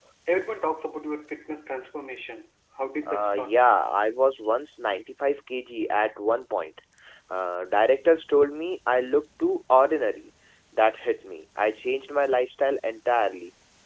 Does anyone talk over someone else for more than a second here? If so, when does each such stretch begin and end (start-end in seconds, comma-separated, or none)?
none